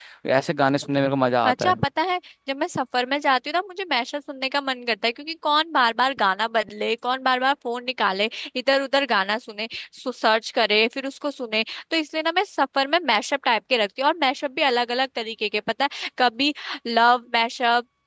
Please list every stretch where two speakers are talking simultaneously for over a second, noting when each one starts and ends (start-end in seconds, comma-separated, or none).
none